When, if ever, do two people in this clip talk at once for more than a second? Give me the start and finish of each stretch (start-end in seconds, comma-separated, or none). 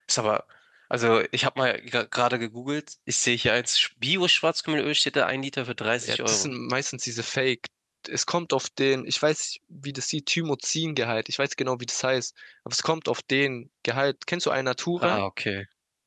none